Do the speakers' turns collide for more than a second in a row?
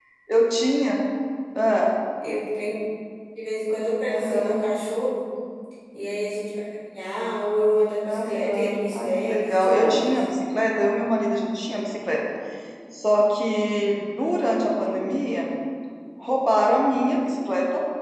Yes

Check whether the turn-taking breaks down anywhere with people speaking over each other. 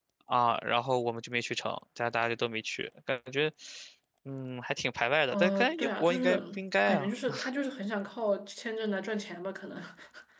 Yes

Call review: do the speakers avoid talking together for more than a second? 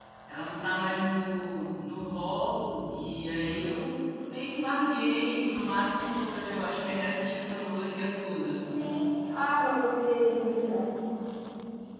Yes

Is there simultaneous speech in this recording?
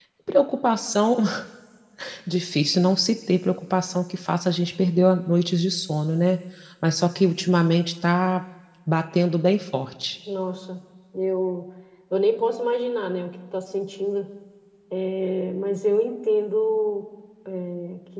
No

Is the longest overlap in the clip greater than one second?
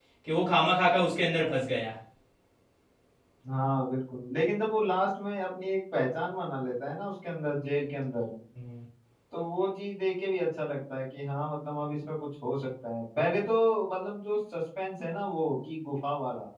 No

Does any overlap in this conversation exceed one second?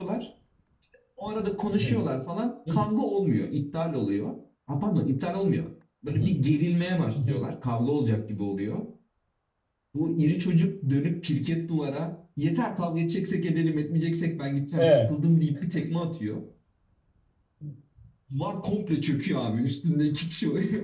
No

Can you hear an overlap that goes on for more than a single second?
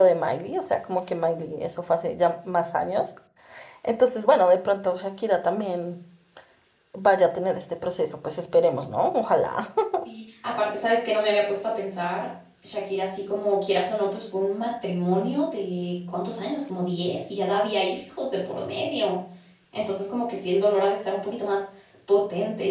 No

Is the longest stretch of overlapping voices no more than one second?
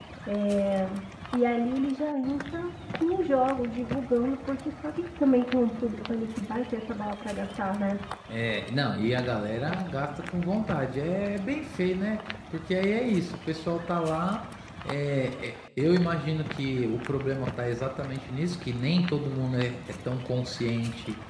Yes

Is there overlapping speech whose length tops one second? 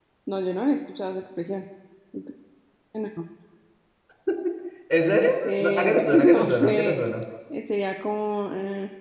Yes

